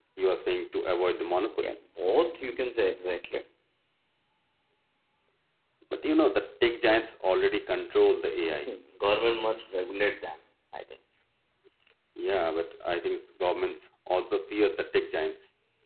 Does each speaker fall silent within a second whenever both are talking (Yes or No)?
Yes